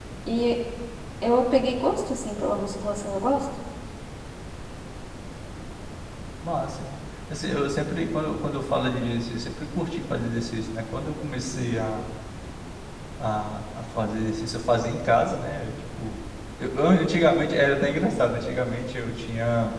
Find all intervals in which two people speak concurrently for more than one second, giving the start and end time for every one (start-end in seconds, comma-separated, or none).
none